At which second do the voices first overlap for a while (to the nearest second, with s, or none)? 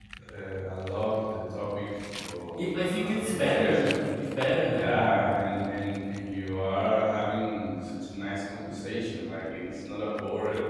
3 s